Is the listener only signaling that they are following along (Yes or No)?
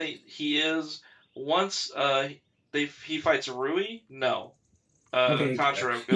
No